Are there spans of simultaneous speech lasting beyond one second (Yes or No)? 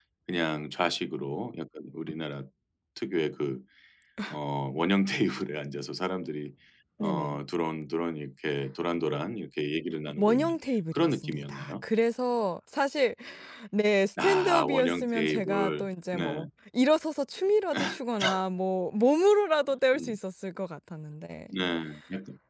Yes